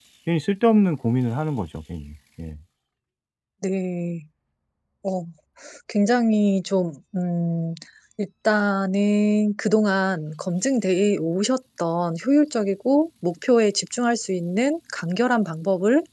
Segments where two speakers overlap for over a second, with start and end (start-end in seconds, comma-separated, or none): none